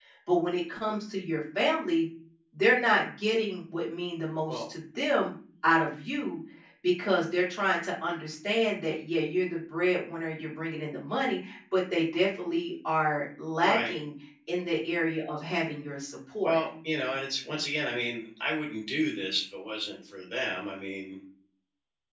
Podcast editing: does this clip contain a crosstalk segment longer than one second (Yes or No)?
No